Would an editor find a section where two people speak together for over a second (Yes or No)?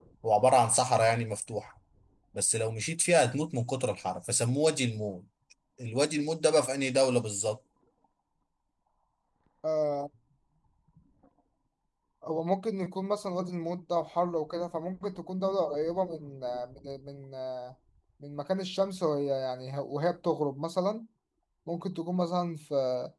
No